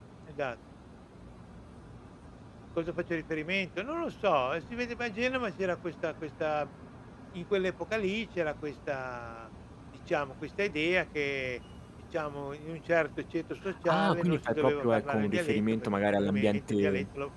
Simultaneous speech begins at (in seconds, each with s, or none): 13.8 s